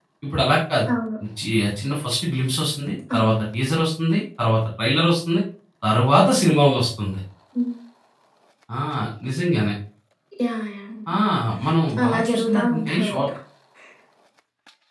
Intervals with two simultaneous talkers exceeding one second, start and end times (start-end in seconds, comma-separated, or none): 12.0-13.2